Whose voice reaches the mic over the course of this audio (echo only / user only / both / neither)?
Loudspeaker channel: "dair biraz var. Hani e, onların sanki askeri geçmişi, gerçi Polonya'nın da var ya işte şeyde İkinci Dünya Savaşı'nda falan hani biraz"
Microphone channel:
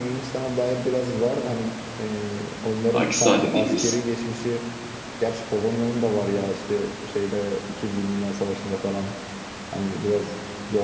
both